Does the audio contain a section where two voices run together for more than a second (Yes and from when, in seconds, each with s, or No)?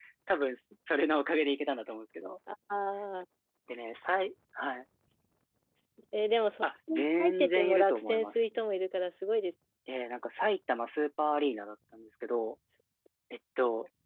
Yes, from 6.9 s